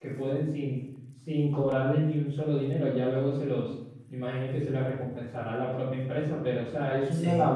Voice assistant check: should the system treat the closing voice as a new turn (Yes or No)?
No